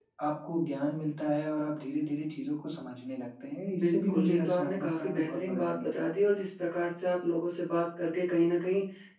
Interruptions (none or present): present